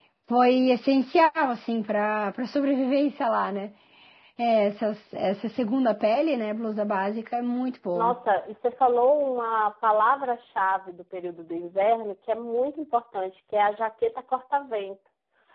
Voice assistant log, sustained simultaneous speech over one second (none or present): none